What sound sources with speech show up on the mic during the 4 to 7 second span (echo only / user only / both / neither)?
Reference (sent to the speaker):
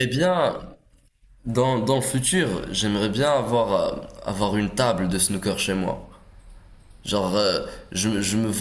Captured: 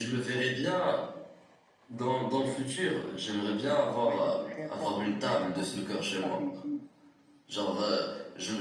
both